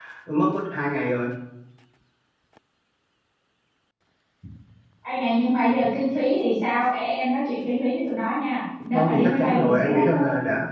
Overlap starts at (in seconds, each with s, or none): 8.9 s